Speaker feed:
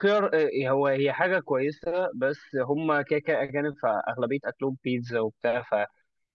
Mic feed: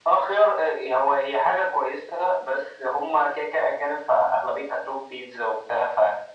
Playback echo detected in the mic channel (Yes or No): Yes